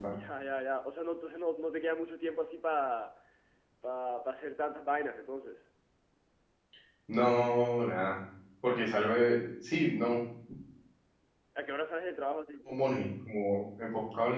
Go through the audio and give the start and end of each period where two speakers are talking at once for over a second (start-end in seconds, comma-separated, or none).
none